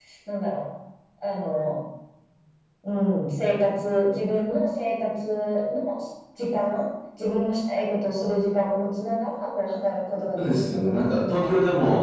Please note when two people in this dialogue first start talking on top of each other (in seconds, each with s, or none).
10.4 s